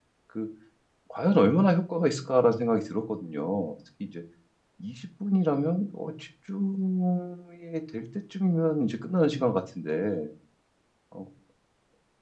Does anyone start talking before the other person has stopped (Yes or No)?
No